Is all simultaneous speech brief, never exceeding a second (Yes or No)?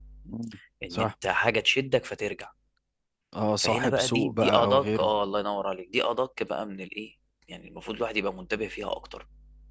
No